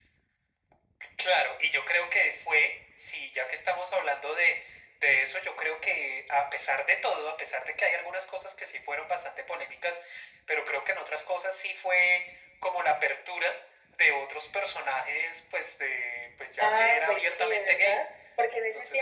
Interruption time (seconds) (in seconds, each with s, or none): 16.6 s